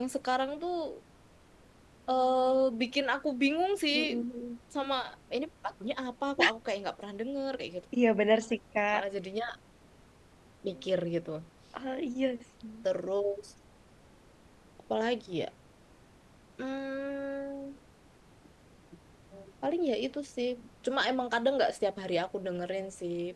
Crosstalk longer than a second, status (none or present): none